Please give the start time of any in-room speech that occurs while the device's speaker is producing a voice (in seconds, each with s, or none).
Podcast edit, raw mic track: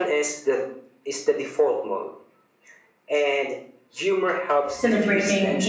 4.7 s